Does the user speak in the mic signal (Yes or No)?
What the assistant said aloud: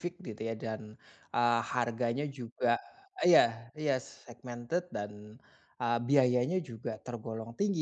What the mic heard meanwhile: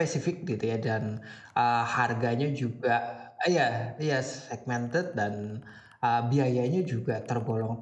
No